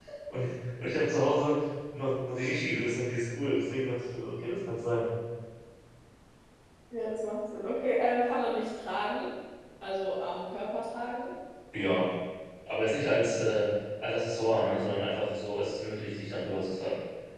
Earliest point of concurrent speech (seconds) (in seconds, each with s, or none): none